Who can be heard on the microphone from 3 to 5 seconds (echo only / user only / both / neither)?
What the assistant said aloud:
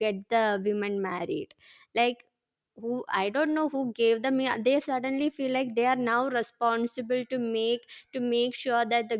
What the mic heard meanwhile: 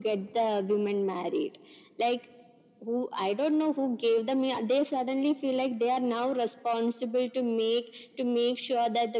echo only